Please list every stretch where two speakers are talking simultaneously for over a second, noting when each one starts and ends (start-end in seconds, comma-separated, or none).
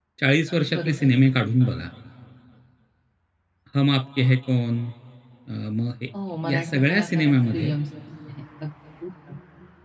6.5-7.8